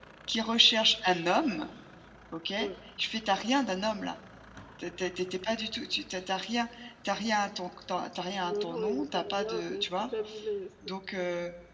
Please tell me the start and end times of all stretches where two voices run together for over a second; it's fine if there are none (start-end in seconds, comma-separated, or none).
8.4-9.8